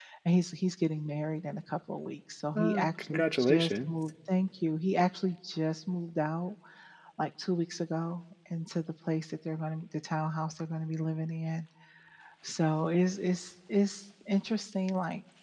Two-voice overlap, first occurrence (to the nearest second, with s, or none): 3 s